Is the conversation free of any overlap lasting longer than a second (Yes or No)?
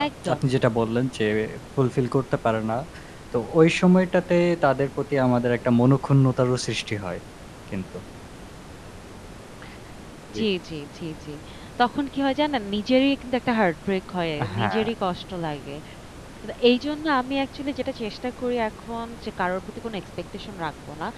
Yes